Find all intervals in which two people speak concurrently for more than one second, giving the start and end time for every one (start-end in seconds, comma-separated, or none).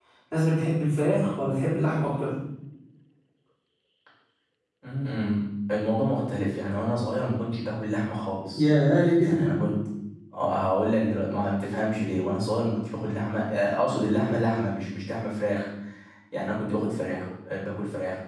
none